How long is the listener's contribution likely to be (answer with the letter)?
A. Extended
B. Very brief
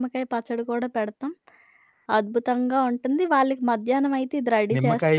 A